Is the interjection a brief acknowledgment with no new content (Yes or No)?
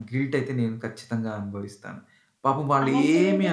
No